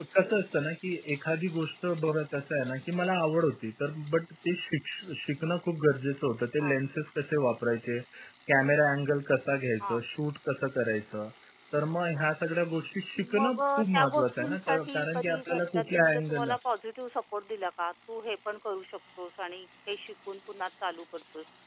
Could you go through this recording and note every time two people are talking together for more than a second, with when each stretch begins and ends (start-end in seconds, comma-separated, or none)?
13.2-16.5